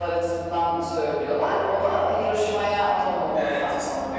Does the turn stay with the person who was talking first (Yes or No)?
No